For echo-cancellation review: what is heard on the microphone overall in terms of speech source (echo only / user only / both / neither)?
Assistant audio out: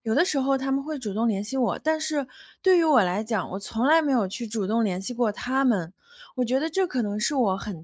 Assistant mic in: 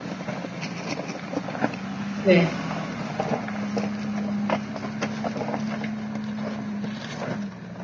user only